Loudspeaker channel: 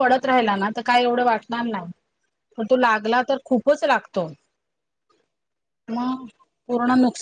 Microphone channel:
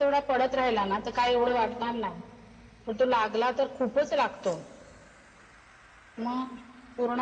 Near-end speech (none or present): present